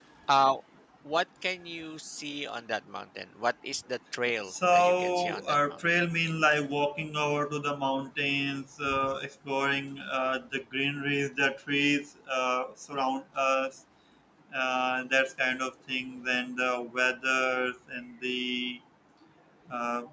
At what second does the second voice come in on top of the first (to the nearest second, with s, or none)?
4 s